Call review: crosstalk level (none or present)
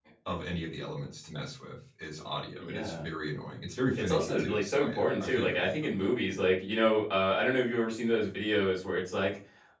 present